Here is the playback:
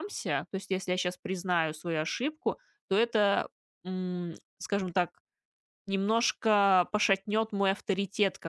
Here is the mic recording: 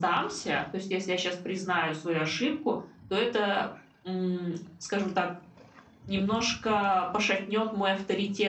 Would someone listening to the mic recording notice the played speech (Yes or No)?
Yes